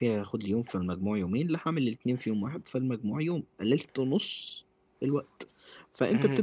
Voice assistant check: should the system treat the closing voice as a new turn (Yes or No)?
No